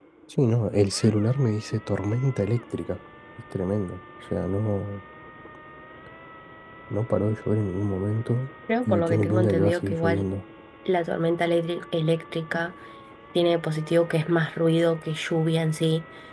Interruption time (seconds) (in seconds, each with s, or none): 8.7 s